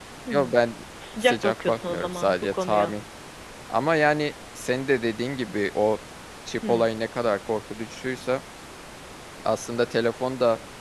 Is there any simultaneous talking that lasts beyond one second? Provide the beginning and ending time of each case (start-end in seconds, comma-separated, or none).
1.2-2.9